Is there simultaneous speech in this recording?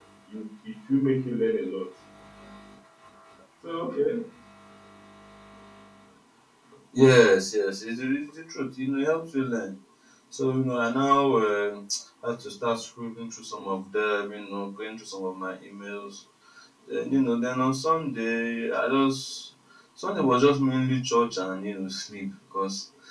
No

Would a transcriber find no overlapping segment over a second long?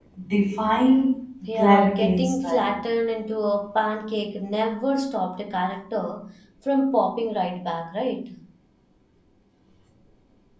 No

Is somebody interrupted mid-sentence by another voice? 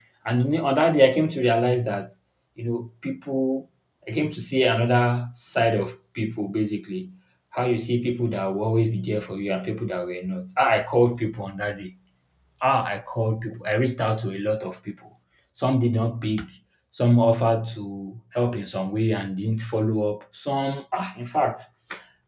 No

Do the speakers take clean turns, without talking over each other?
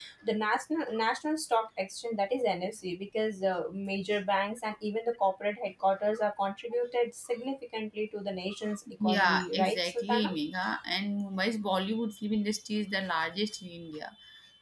No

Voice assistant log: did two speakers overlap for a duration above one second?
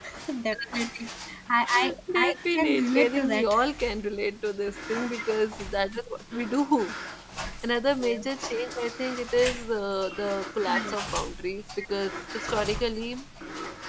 Yes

